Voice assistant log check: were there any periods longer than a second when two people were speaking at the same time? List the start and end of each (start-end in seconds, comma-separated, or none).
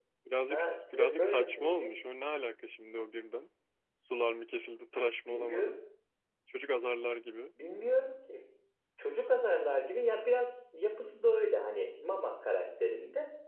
0.5-1.9